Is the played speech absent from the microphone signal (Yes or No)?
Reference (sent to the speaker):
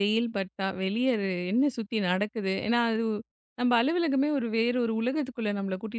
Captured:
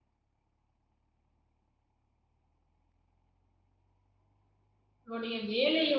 Yes